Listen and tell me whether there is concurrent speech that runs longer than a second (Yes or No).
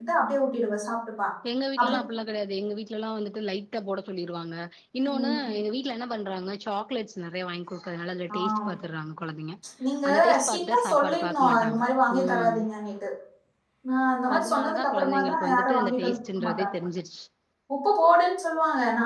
Yes